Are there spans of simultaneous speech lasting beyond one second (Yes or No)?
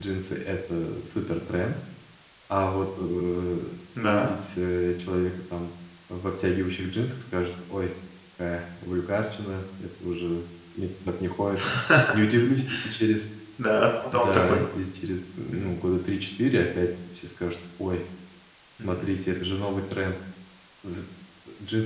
No